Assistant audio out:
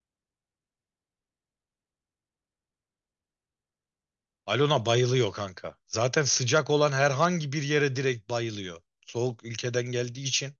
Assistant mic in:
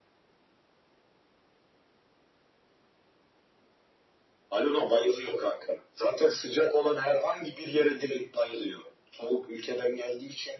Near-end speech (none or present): none